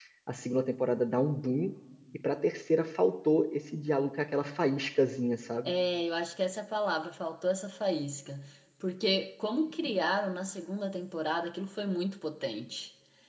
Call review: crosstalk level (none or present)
none